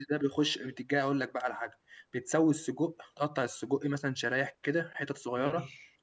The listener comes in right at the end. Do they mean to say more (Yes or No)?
No